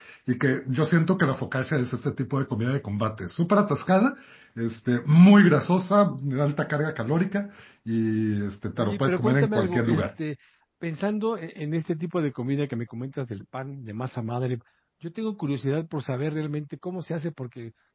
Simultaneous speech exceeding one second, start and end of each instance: 8.8-10.0

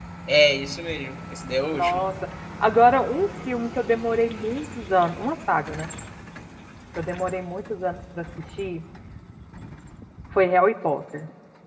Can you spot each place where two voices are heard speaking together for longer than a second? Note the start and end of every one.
none

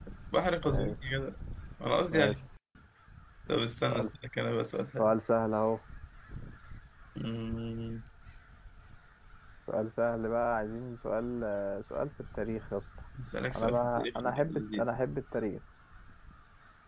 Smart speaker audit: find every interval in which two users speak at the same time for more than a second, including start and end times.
13.6-14.9

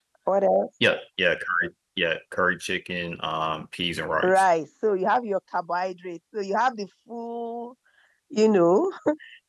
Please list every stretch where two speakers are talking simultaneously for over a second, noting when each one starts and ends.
none

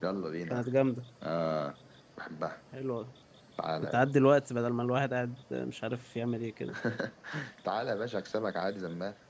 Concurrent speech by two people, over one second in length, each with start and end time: none

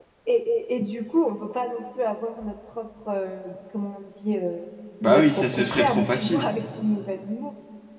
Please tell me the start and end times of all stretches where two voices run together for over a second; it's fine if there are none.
5.0-6.5

